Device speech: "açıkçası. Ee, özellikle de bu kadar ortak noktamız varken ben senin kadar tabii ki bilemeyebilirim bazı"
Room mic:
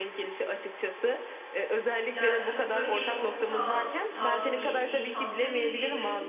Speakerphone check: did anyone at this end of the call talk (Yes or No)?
Yes